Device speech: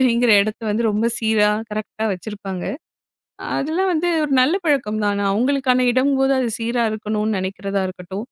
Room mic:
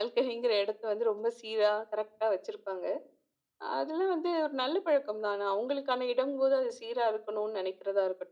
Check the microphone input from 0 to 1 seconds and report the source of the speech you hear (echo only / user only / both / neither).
echo only